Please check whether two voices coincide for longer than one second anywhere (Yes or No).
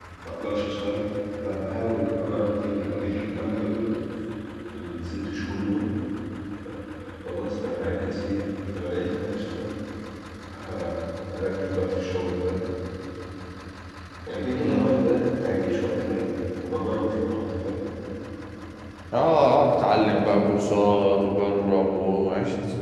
No